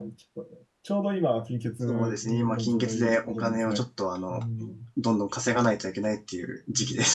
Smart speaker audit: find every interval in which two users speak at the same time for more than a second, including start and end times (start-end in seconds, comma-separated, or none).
1.9-3.8